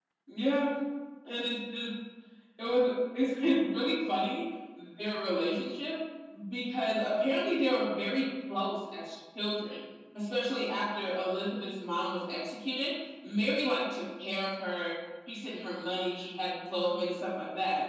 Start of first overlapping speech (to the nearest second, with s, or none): none